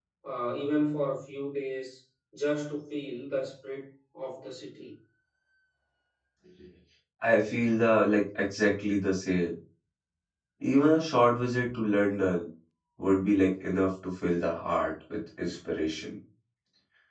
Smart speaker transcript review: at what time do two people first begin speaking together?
none

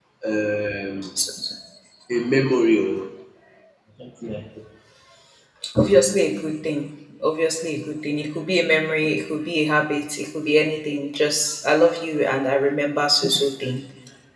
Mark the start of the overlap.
none

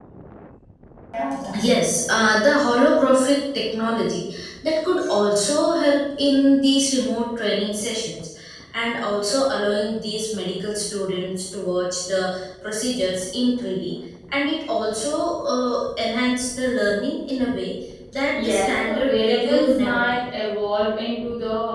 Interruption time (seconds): 18.3 s

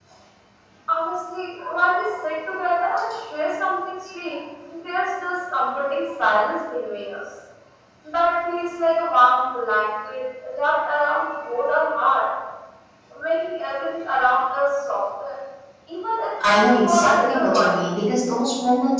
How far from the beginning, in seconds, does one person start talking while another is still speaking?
16.5 s

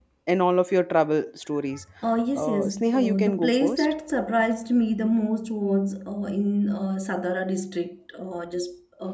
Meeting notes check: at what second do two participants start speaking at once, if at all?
2.4 s

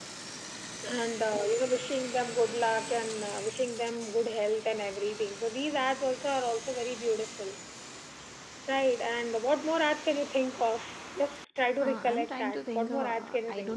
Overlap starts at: 11.8 s

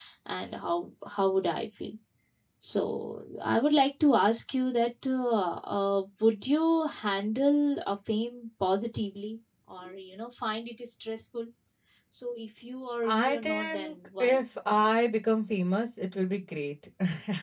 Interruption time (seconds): 13.0 s

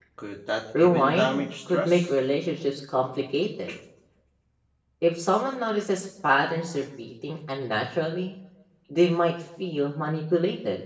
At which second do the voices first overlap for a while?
0.8 s

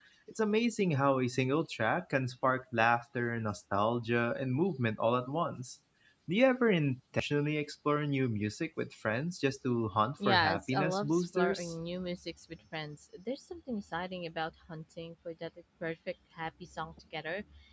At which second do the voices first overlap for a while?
10.2 s

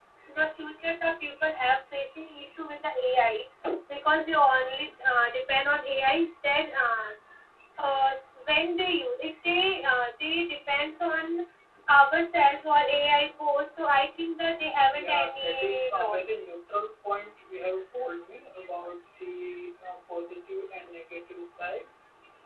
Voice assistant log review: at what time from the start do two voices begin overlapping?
14.9 s

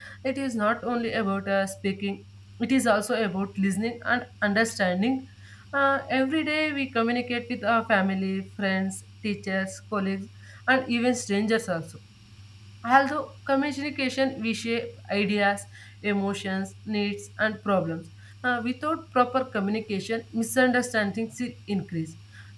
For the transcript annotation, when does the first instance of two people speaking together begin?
none

